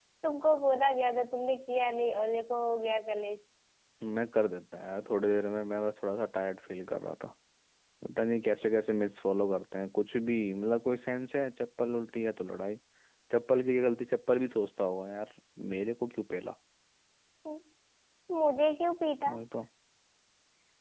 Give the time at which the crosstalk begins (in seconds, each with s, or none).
none